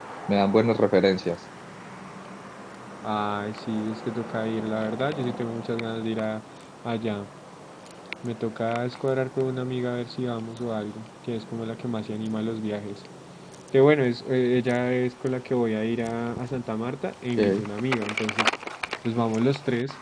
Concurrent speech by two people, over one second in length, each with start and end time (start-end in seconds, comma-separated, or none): none